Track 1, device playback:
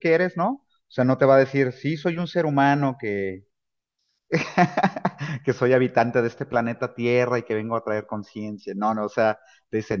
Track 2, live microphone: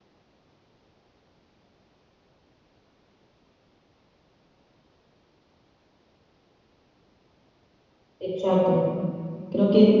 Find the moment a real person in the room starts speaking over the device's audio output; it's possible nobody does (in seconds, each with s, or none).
8.2 s